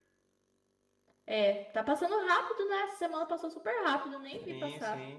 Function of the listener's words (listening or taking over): taking over